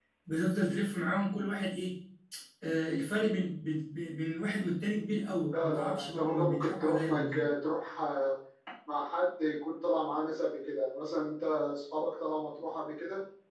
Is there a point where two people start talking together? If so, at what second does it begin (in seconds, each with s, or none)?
5.5 s